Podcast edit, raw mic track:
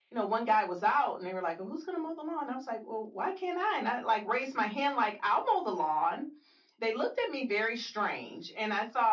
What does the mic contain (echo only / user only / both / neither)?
echo only